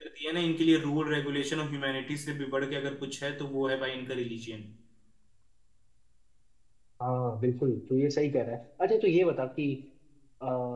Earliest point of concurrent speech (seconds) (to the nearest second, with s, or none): none